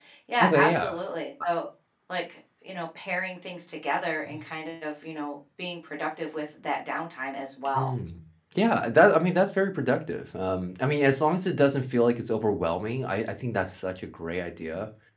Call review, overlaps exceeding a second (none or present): none